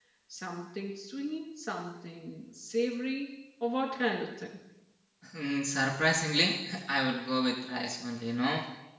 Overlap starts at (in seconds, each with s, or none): none